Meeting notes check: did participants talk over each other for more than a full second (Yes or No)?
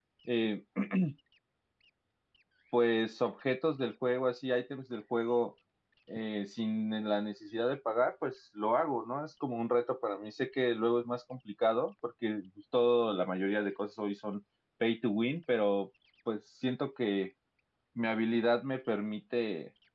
No